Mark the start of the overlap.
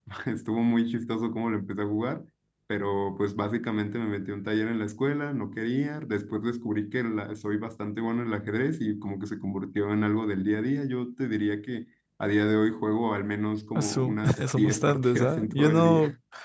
14 s

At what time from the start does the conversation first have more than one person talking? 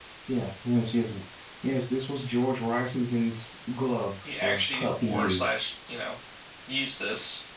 4 s

